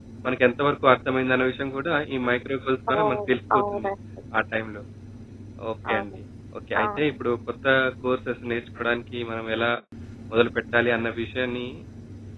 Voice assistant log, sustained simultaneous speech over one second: none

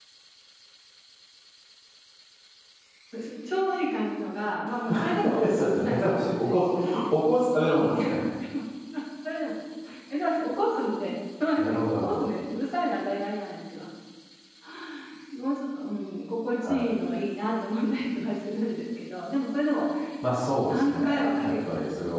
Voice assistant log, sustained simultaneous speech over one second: present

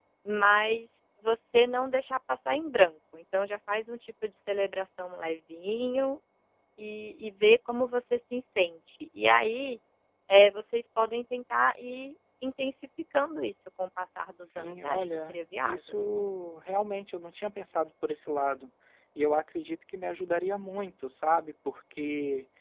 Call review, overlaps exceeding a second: present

